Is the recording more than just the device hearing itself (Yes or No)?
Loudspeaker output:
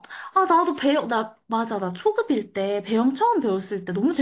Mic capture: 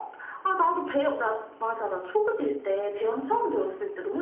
No